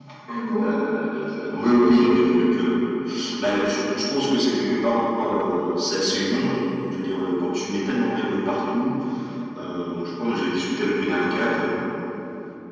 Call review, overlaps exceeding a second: present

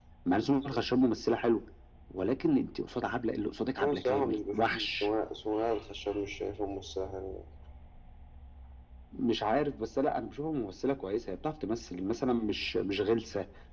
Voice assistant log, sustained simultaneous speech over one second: present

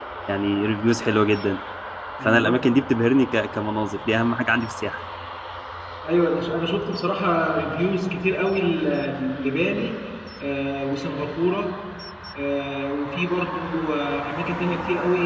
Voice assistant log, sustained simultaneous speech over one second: none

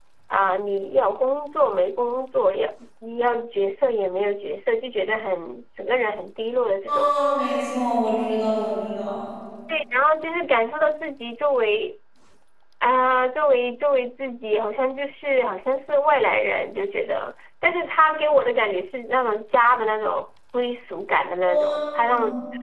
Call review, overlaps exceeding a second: none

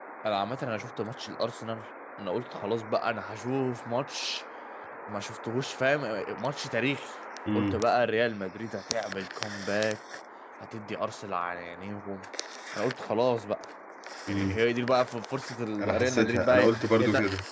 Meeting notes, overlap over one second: present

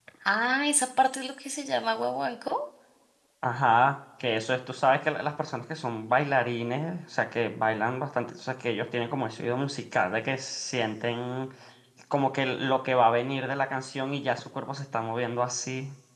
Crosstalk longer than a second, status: none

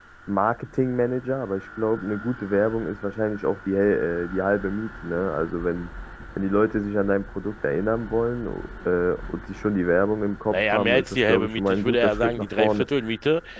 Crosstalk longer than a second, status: present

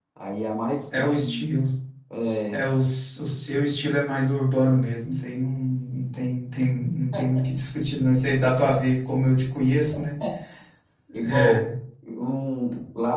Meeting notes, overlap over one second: none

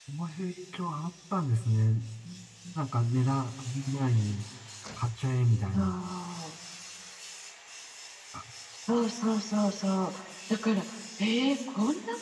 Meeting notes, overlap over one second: none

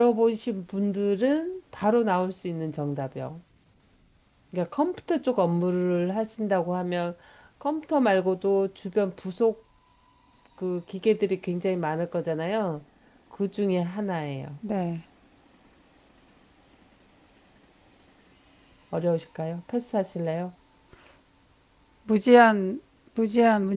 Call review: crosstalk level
none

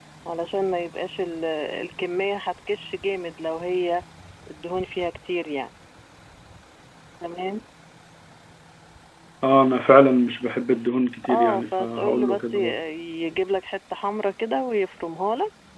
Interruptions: present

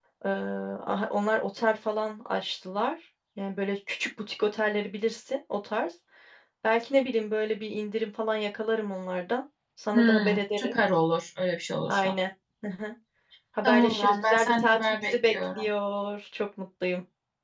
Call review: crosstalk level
present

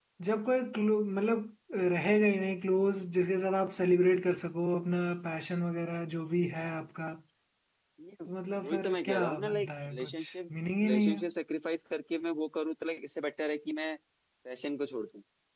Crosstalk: present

